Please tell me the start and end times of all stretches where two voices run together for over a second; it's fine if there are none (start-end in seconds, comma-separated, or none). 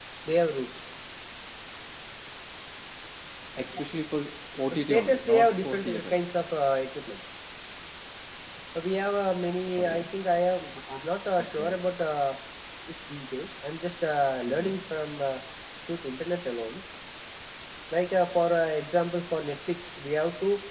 4.7-6.3